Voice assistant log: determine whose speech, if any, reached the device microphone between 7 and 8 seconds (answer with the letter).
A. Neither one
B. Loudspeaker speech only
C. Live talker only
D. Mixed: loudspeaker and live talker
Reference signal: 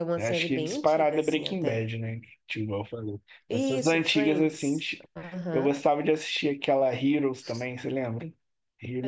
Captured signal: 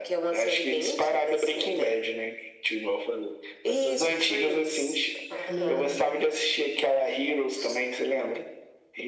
B